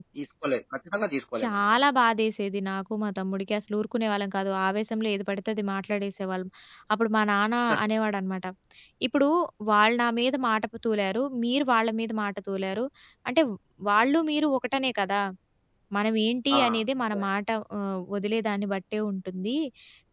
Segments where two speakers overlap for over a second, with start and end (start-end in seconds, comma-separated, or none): none